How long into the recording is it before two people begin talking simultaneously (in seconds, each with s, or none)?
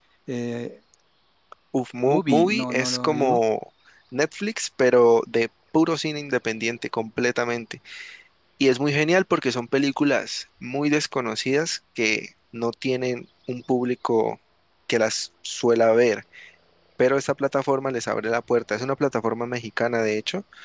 2.1 s